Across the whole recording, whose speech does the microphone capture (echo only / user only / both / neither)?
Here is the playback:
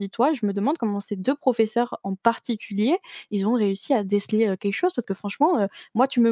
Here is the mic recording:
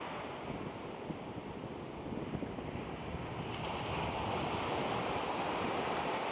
neither